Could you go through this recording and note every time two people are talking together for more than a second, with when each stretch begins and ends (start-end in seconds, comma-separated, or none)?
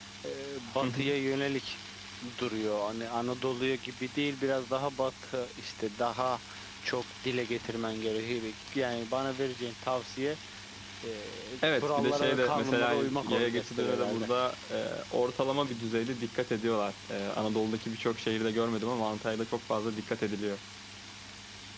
11.7-14.3